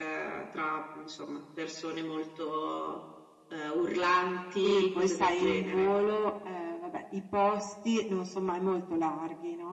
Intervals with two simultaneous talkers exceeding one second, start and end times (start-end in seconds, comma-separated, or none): 4.6-5.9